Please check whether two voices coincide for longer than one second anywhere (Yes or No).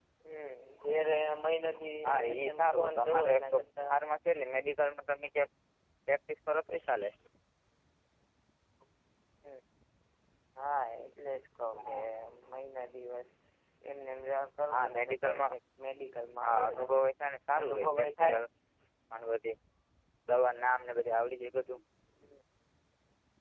Yes